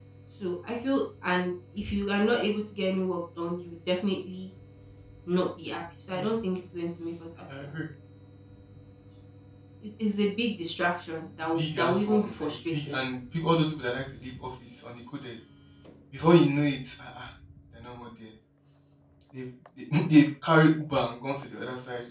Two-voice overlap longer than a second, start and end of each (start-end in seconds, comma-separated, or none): 11.5-13.0